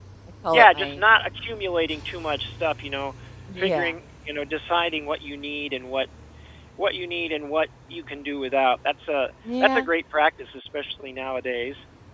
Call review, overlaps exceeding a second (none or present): none